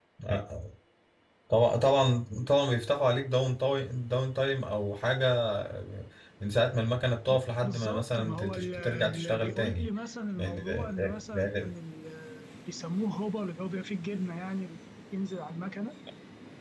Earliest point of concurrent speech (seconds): 7.3 s

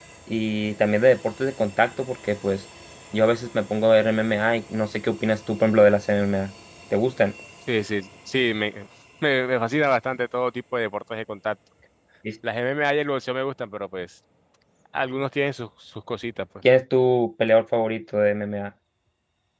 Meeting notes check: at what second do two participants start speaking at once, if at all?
none

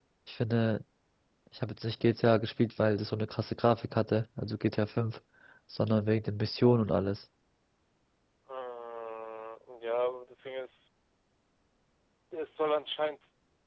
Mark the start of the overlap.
none

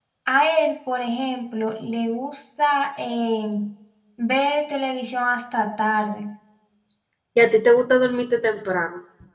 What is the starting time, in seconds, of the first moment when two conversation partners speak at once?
none

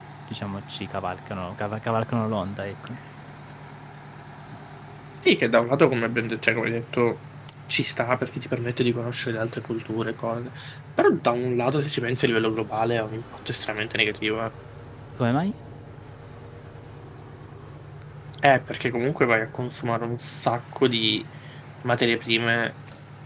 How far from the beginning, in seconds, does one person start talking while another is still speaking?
none

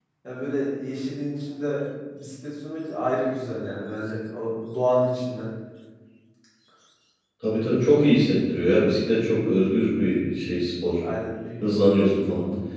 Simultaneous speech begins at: none

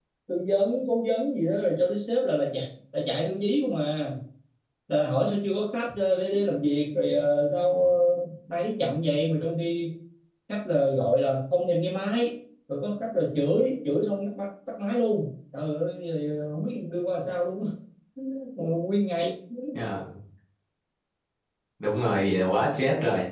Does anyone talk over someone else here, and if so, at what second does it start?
none

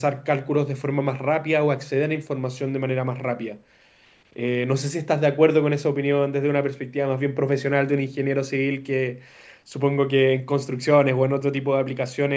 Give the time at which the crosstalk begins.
none

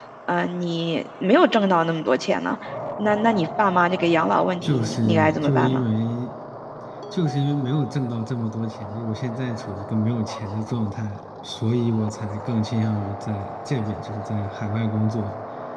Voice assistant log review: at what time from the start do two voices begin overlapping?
4.6 s

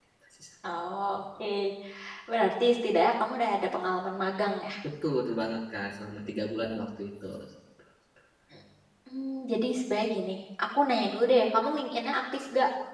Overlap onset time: none

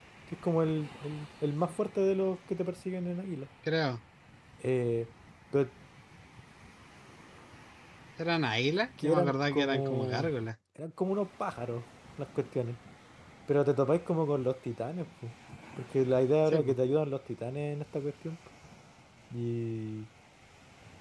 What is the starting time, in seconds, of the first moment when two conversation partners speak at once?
9.0 s

